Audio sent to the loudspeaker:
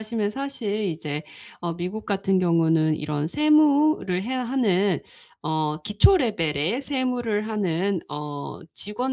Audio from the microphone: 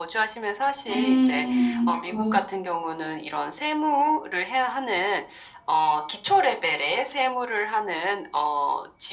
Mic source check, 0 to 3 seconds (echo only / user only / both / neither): both